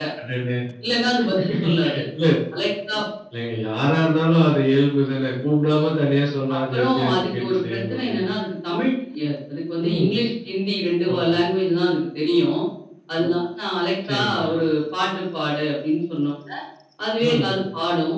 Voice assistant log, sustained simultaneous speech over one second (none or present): present